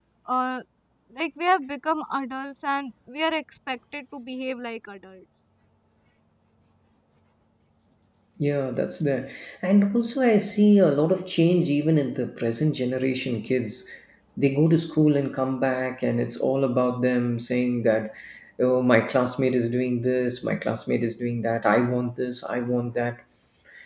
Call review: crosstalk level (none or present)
none